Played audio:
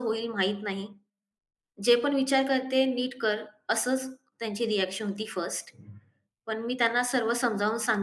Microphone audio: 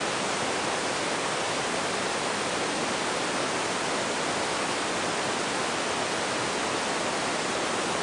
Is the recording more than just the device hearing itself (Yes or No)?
No